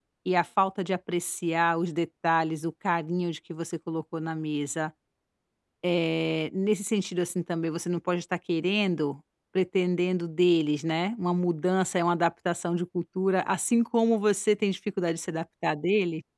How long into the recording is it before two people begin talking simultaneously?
none

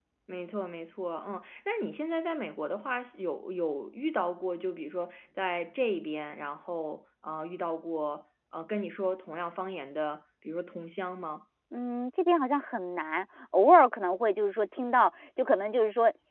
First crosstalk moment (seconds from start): none

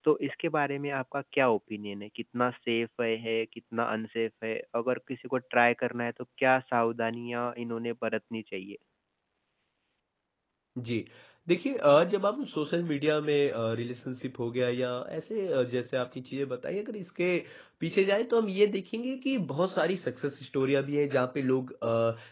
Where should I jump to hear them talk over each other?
none

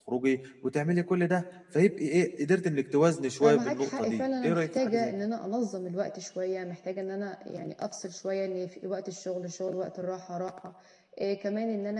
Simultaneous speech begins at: 3 s

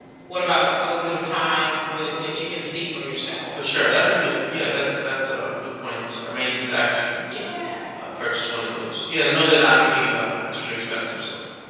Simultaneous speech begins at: none

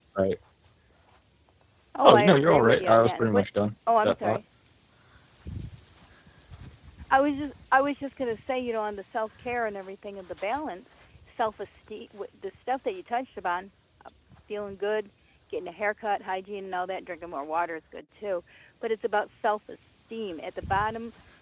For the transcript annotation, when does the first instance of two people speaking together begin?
2 s

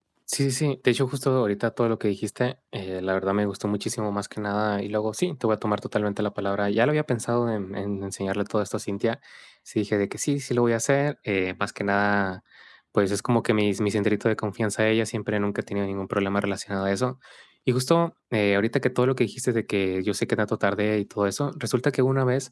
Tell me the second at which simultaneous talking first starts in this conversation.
none

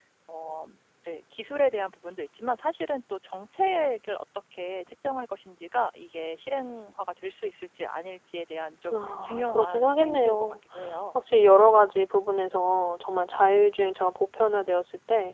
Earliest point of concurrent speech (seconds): 9 s

